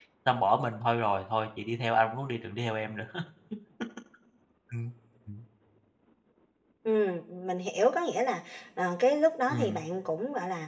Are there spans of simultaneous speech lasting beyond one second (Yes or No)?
No